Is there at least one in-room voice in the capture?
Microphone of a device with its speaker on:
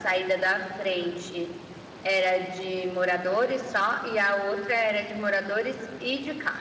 No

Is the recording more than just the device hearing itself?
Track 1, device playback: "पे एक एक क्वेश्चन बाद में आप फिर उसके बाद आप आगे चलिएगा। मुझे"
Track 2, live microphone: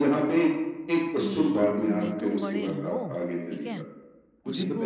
Yes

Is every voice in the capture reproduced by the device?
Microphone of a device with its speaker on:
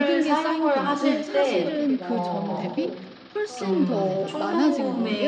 No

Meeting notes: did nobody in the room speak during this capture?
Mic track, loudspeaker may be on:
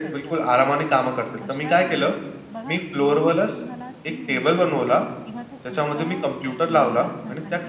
No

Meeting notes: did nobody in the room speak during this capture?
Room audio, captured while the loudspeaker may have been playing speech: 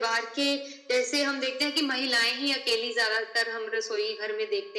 Yes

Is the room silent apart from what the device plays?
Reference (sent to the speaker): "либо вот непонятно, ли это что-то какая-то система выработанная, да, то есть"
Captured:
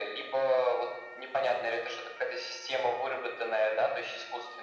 Yes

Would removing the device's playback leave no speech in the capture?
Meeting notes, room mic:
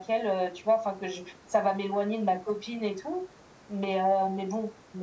Yes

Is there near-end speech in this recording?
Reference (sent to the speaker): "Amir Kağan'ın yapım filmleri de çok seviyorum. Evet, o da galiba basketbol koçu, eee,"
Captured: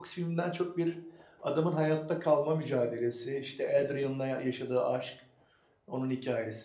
Yes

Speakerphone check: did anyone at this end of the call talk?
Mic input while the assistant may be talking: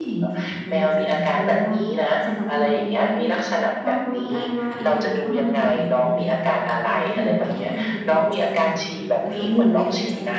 Yes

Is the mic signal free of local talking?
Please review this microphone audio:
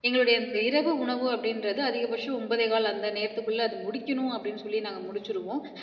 No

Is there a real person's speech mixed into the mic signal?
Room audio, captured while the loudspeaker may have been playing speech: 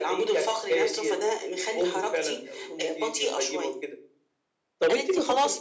No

